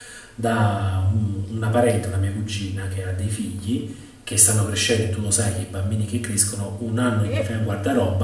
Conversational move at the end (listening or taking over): listening